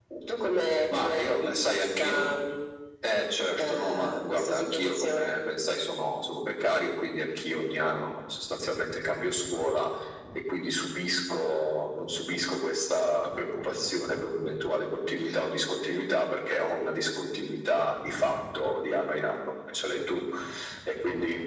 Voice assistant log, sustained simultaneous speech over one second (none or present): present